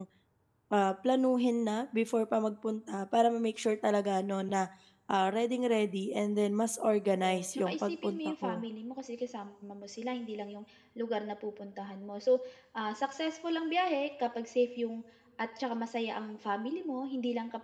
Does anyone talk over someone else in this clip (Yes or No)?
Yes